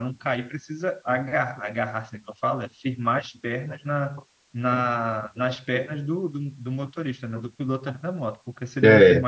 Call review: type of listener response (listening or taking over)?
listening